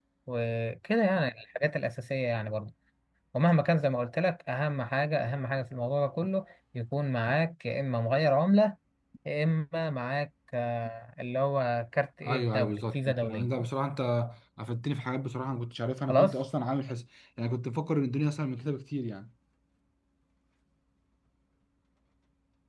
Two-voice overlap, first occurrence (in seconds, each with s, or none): 12.2 s